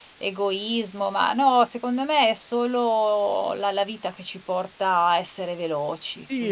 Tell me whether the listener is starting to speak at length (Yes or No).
Yes